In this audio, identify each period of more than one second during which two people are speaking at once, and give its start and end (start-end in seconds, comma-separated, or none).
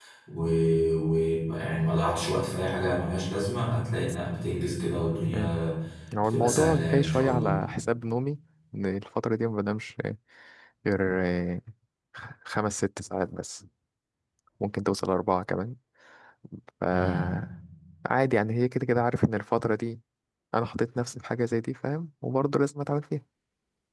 6.2-7.6